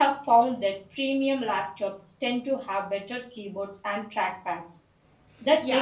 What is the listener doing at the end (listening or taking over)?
taking over